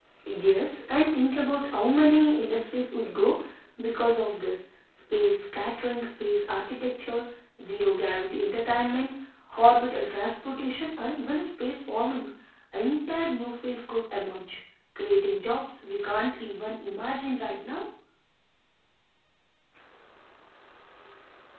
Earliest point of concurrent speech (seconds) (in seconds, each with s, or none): none